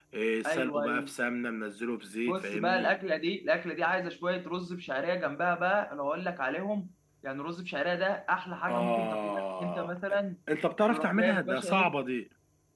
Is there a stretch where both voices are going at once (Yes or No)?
Yes